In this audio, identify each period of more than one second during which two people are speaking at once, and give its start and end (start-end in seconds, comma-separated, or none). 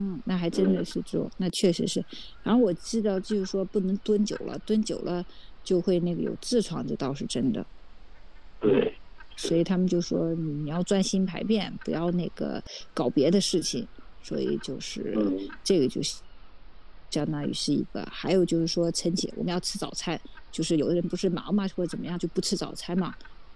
none